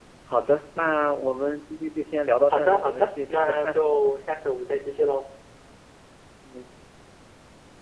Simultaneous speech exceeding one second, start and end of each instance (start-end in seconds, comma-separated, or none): 2.5-3.8